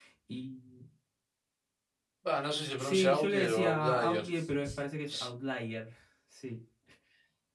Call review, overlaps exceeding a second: present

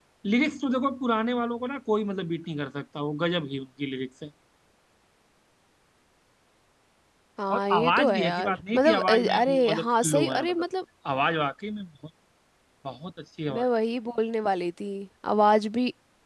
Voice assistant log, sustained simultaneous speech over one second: present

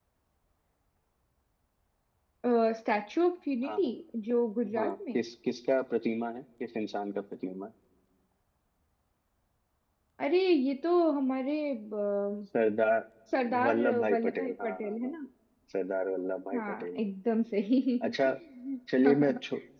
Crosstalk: present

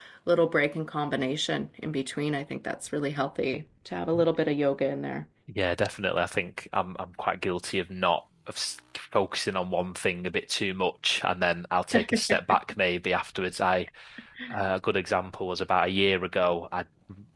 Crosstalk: none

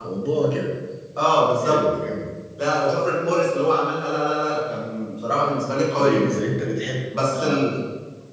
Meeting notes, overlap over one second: none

